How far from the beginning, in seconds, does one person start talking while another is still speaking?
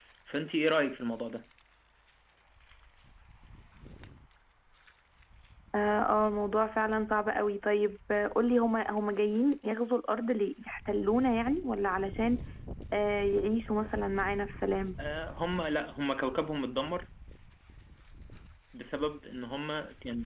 none

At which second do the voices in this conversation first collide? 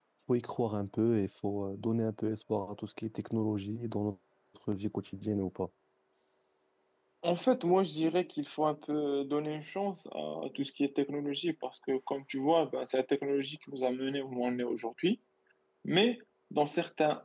none

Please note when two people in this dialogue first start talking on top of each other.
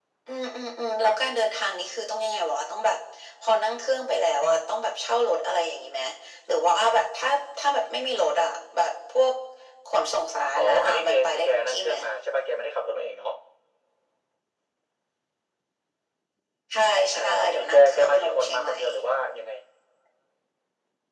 10.6 s

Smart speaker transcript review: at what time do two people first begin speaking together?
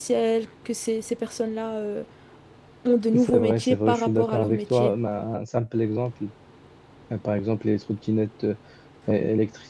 3.1 s

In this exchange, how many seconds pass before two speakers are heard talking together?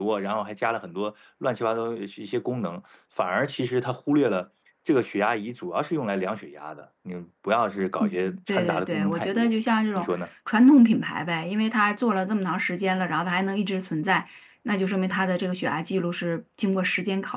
8.0 s

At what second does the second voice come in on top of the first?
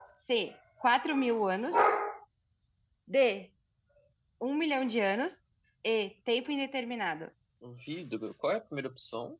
none

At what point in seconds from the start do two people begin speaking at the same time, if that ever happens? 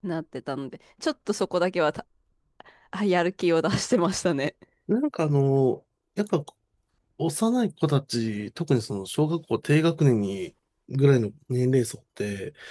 none

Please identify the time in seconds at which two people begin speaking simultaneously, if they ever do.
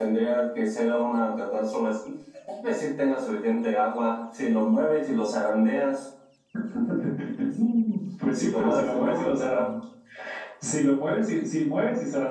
8.3 s

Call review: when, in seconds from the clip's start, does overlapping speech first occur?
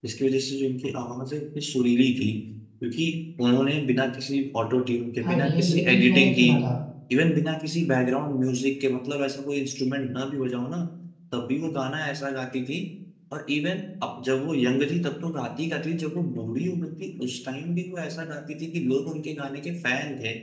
5.2 s

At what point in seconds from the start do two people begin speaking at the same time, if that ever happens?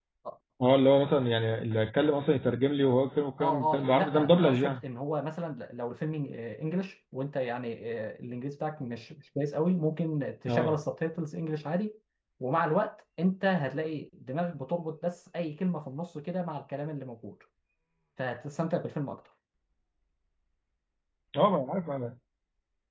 3.4 s

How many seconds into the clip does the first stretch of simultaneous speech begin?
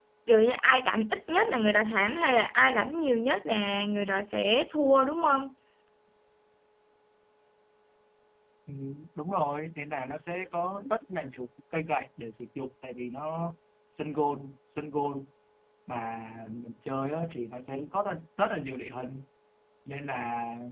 none

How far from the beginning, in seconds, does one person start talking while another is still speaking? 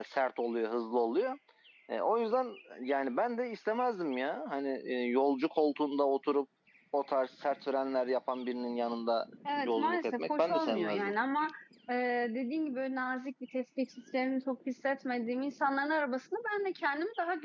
9.6 s

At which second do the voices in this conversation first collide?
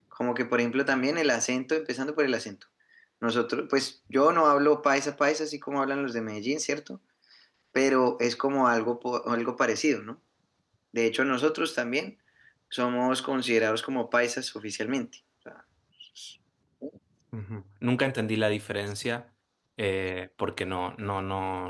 none

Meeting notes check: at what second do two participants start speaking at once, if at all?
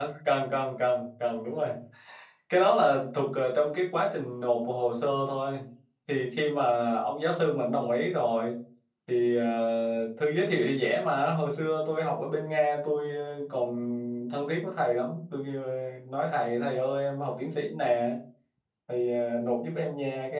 none

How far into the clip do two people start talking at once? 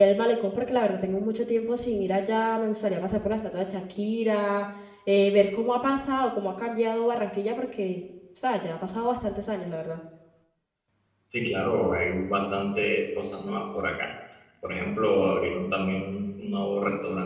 none

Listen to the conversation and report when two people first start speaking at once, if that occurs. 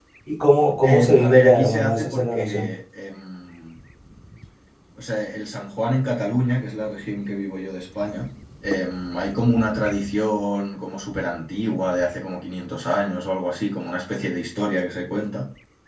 0.9 s

